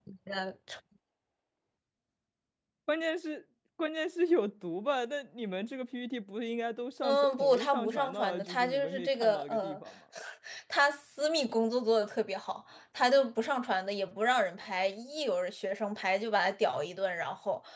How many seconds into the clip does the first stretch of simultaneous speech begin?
7.0 s

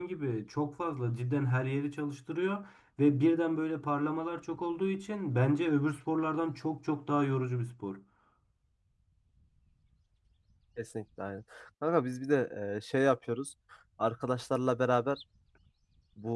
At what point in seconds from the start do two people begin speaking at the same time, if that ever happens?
none

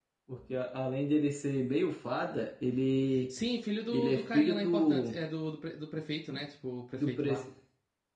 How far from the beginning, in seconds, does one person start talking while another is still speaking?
3.9 s

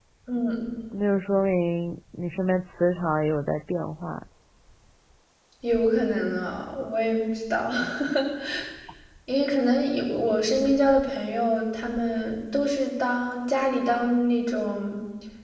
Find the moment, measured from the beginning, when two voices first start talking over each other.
none

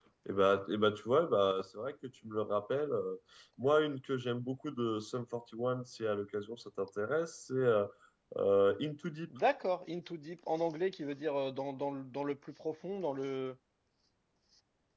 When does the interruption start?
none

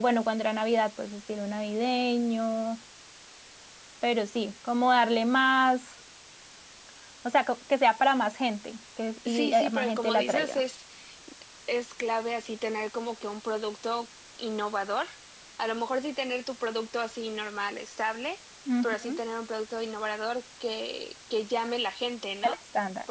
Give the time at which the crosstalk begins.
9.2 s

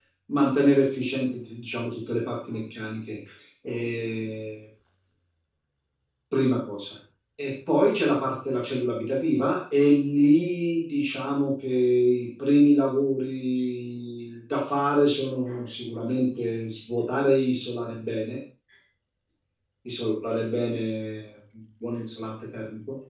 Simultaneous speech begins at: none

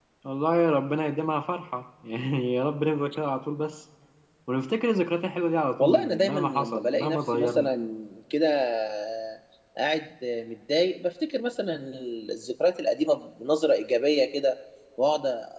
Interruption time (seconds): 5.8 s

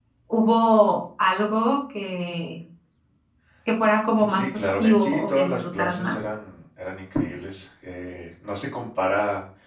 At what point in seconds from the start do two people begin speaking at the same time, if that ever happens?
4.2 s

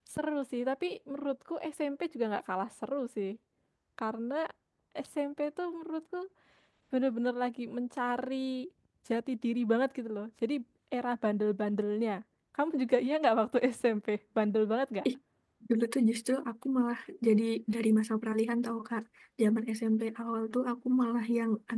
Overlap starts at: none

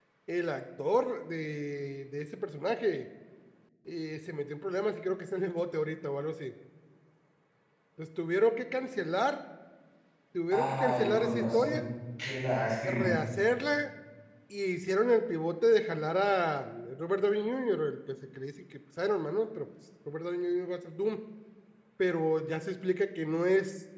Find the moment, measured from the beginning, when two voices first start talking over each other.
10.5 s

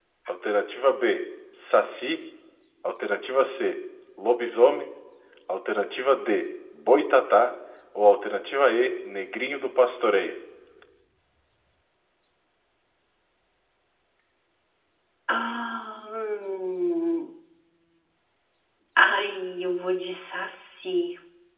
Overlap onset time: none

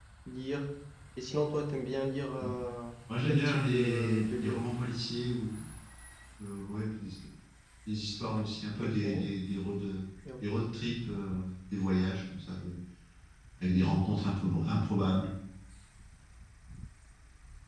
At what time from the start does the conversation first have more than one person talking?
3.3 s

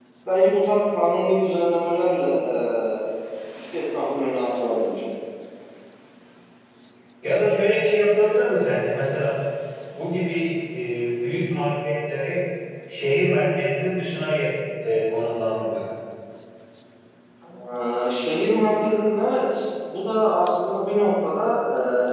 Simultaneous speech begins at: none

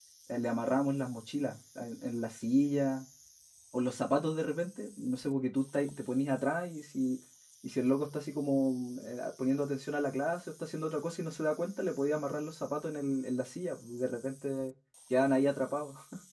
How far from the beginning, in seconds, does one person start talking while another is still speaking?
none

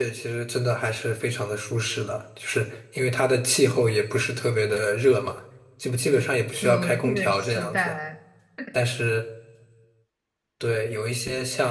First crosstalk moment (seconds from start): 6.6 s

